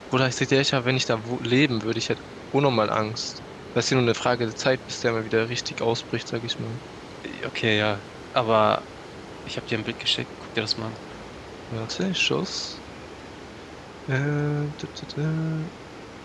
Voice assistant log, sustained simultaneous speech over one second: none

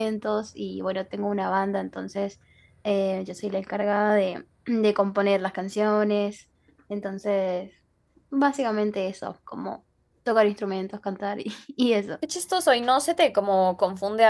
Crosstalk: none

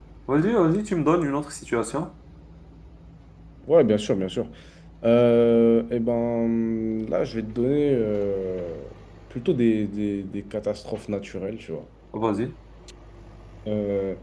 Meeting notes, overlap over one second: none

